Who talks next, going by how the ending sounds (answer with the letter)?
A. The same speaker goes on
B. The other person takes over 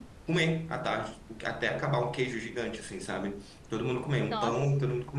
A